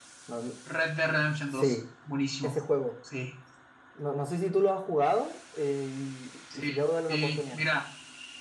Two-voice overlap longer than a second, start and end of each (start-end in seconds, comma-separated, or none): none